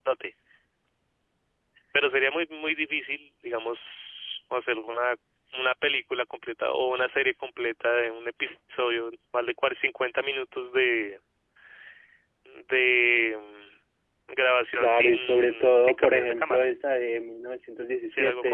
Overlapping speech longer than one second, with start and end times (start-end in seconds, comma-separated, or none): 14.8-16.6